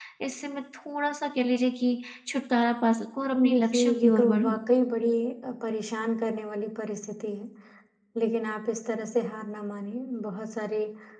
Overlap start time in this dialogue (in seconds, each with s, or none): 3.3 s